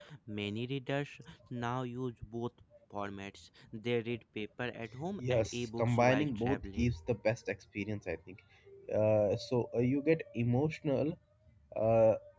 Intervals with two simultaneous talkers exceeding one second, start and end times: 5.2-6.9

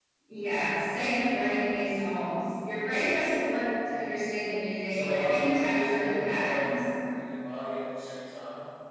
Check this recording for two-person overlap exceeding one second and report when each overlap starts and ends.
4.9-6.8

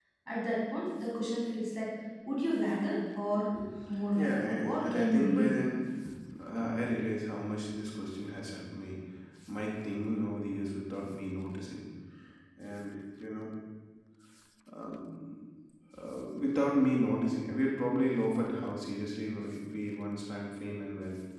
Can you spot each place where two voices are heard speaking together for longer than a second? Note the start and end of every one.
4.2-5.7

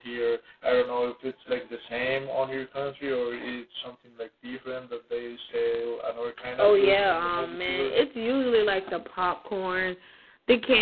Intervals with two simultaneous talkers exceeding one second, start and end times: 6.6-8.0

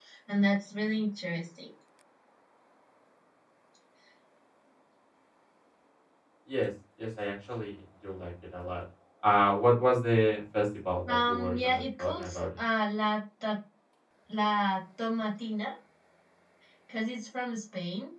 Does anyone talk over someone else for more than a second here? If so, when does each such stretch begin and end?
11.1-12.4

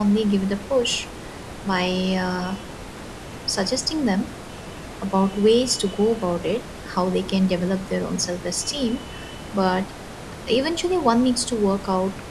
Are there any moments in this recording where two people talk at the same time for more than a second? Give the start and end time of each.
none

